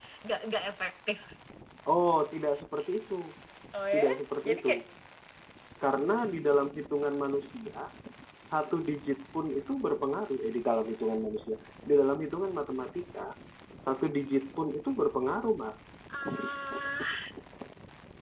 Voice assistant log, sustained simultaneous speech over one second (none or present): none